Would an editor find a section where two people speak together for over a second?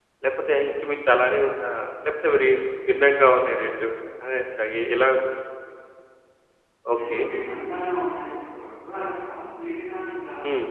No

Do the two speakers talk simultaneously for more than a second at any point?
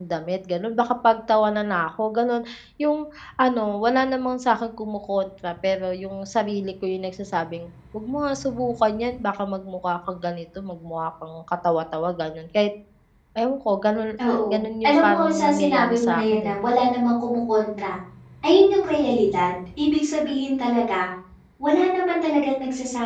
Yes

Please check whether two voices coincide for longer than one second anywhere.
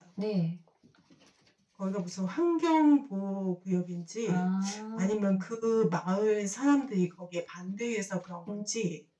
No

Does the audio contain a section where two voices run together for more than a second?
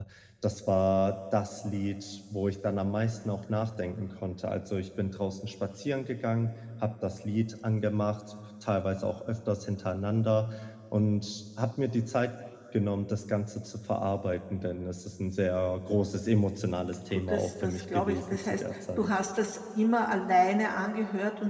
Yes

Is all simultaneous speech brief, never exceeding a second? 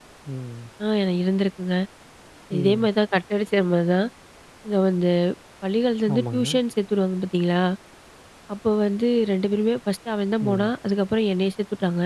Yes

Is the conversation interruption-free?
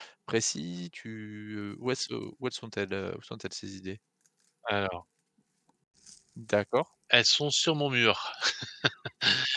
Yes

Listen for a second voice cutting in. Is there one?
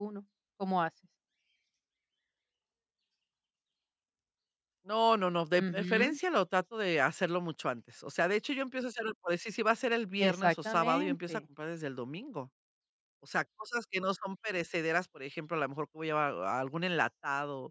Yes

